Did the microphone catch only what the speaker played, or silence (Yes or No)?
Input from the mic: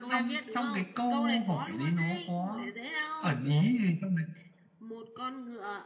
Yes